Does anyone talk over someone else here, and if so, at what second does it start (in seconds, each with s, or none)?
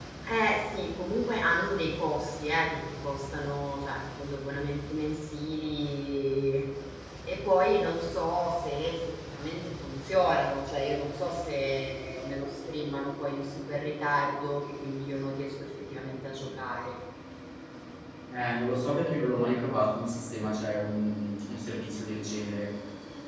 none